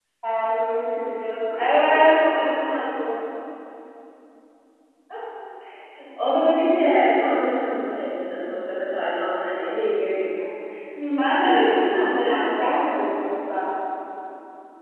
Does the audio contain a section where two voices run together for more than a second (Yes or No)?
Yes